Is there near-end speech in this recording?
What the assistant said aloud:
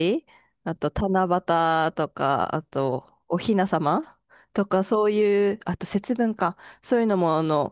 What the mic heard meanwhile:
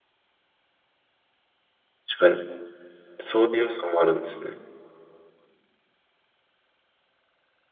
Yes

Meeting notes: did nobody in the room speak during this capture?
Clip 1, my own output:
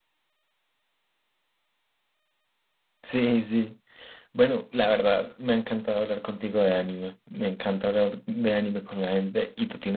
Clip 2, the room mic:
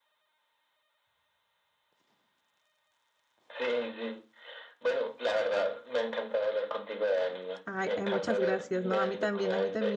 No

